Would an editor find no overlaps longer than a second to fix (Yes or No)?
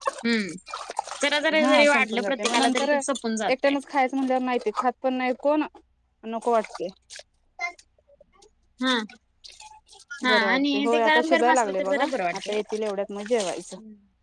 No